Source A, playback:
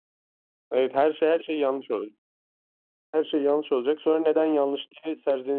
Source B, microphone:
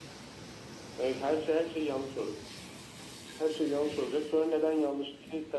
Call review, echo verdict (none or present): present